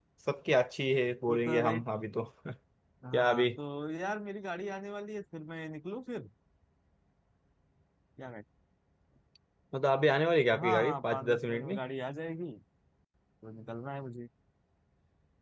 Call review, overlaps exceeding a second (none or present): present